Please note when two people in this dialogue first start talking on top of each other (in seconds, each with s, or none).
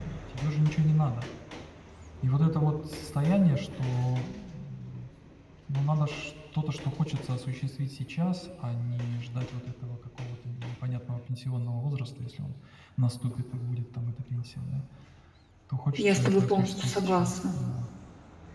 16.0 s